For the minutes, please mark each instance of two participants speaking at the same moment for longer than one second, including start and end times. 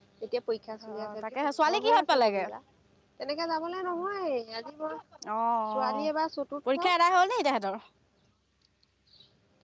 0.8-2.4

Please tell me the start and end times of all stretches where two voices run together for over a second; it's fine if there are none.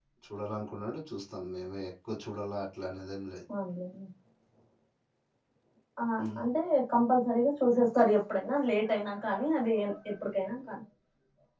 none

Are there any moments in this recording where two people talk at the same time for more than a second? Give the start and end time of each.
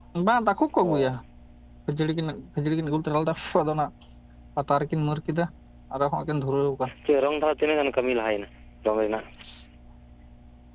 none

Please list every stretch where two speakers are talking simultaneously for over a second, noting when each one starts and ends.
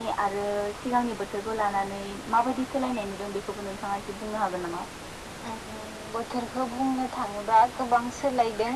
none

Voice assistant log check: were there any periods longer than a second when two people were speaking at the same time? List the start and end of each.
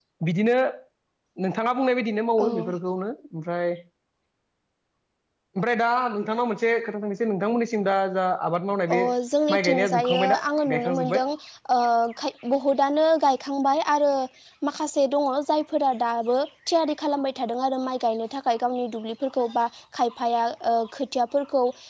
9.6-11.2

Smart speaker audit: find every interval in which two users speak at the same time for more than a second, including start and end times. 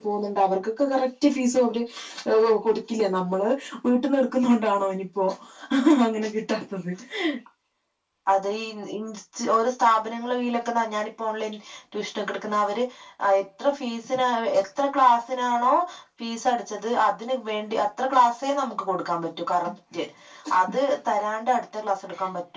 none

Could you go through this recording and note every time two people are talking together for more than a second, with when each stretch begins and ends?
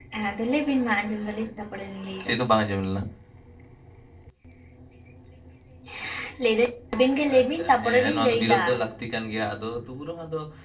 7.4-8.6

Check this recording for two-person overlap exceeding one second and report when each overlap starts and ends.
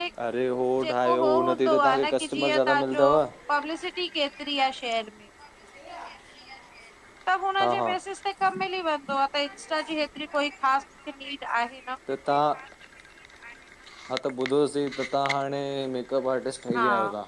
0.8-3.0

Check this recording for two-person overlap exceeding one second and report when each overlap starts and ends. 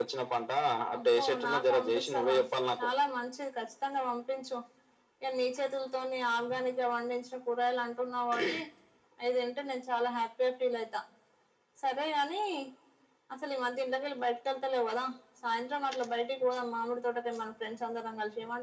0.9-2.3

